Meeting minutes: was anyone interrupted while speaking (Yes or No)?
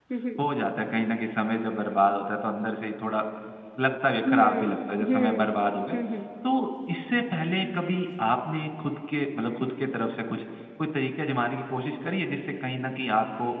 Yes